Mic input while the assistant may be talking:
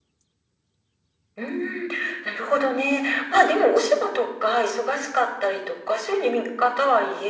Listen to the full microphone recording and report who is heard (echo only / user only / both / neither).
echo only